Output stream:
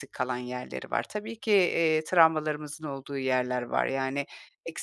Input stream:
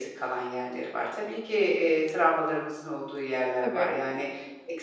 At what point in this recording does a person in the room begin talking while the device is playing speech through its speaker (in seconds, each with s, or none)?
3.6 s